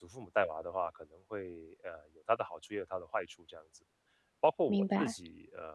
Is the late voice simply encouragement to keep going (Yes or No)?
Yes